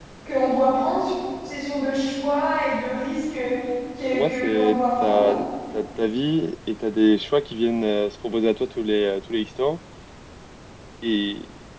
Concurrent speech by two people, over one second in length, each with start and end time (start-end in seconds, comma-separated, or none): 4.1-5.4